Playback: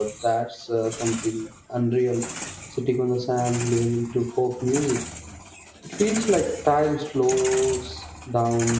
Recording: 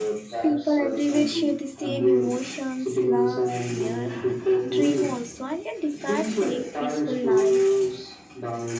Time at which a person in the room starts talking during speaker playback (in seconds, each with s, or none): 0.4 s